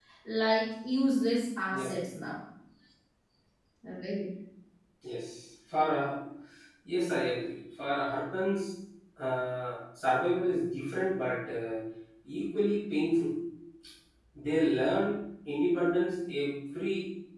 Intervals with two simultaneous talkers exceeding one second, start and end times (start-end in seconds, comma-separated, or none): none